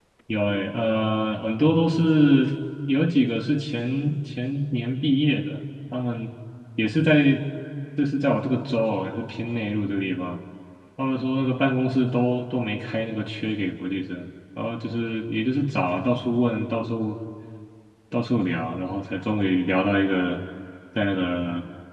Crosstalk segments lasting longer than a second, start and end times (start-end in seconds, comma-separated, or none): none